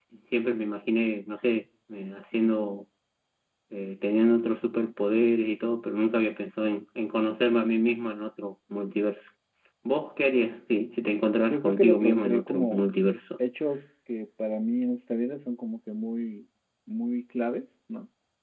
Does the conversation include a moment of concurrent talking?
Yes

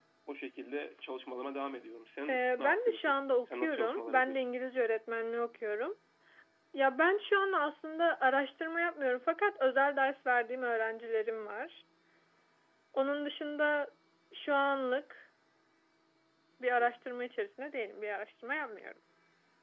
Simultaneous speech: Yes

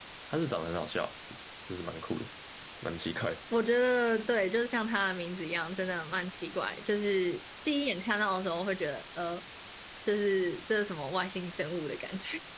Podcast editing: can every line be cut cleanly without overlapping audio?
Yes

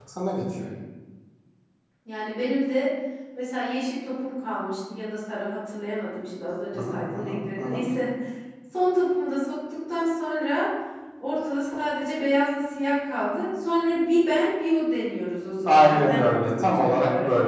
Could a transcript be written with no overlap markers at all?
No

